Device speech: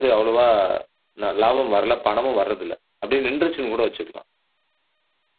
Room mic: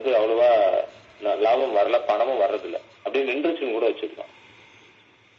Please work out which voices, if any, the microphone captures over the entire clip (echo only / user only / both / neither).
echo only